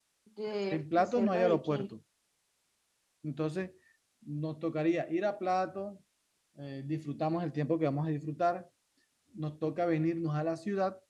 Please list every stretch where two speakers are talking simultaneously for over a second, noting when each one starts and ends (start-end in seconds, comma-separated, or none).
0.7-1.9